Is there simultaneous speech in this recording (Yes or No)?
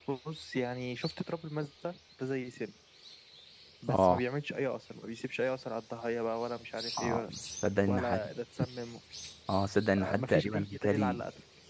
Yes